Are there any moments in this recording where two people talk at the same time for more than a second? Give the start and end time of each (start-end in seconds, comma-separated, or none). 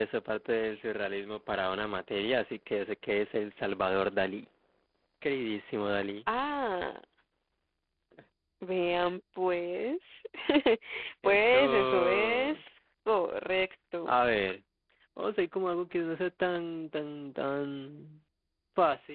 11.2-12.6